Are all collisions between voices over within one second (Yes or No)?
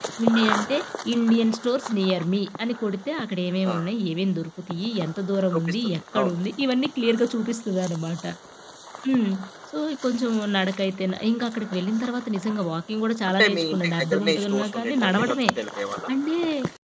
No